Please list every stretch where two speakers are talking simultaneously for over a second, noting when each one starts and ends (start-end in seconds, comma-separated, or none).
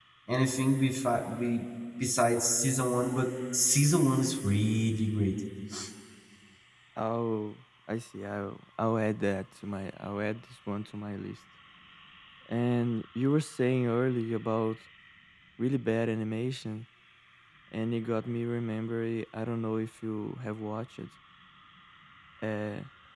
none